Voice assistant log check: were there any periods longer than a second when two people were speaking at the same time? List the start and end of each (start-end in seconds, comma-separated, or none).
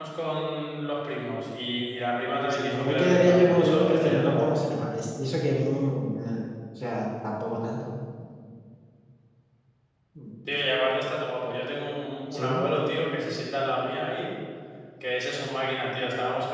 2.5-4.6